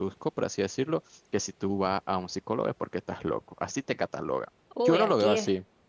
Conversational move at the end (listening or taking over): taking over